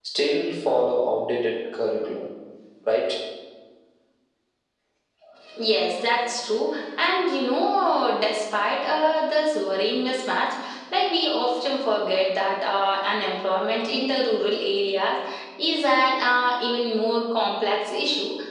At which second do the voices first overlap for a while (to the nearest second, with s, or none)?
none